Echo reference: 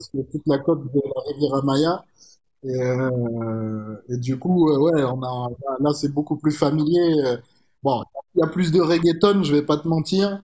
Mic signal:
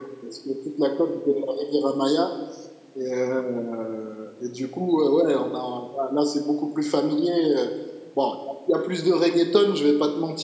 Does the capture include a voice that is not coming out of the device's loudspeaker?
No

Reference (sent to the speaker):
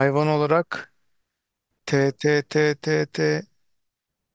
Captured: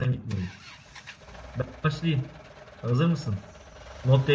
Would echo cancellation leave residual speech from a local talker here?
Yes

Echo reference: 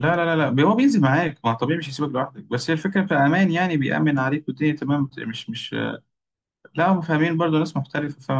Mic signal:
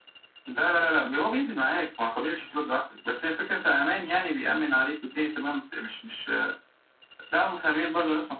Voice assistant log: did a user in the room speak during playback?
No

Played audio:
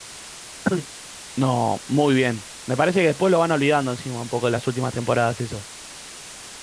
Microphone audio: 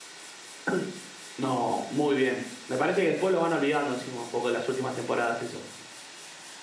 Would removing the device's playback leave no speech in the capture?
Yes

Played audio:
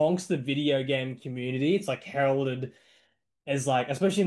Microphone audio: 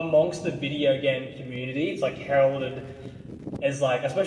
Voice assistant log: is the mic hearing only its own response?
Yes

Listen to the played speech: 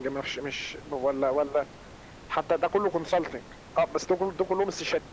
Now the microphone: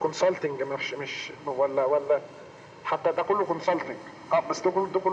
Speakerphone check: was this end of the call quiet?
Yes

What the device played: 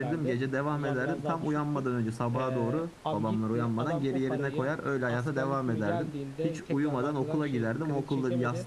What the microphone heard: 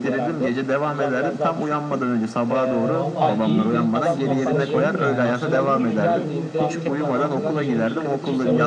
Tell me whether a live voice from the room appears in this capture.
Yes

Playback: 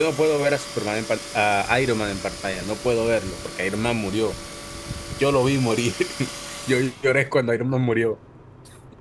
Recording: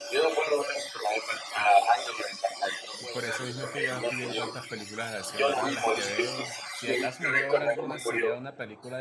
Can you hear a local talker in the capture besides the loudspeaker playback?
Yes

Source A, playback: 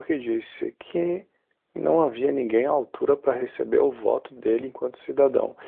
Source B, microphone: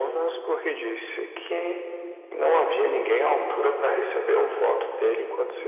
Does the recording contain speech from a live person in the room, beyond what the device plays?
No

